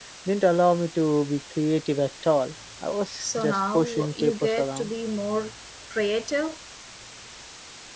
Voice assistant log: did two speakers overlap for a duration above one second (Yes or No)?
Yes